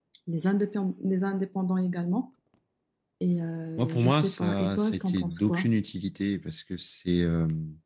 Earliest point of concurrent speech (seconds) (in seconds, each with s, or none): 3.8 s